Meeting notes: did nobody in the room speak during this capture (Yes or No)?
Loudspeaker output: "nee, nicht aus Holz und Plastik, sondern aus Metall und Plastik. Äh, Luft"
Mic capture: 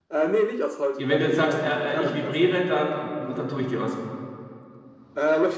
No